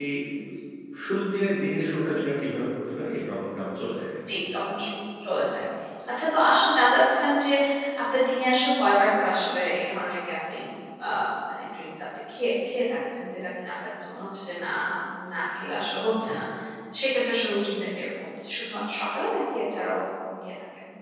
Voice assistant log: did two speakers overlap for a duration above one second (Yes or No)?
No